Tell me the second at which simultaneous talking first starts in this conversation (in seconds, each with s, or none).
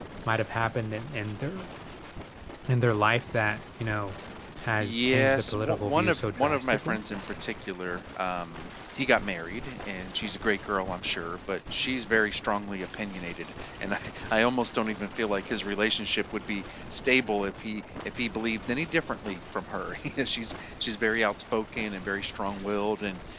4.8 s